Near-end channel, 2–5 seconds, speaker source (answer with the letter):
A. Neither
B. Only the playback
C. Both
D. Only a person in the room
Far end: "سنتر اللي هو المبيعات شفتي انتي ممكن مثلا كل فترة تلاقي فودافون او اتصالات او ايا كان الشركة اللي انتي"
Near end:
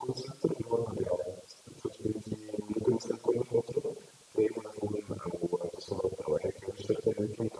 B